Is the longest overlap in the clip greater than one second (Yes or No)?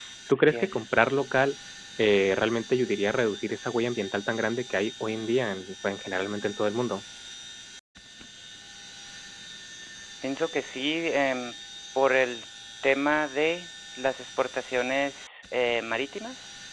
No